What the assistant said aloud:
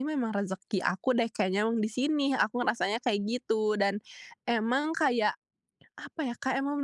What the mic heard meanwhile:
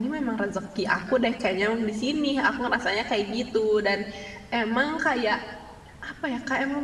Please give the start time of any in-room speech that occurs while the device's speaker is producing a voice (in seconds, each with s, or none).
none